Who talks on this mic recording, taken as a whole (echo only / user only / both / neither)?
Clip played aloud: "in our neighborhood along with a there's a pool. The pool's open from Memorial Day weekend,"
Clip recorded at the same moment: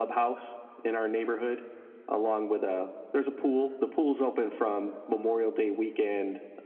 echo only